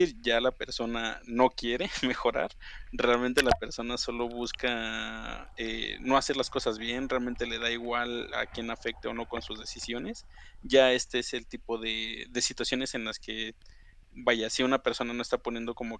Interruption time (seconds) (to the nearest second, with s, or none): none